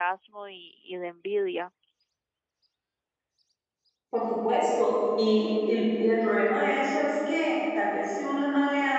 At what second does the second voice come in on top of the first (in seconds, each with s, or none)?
none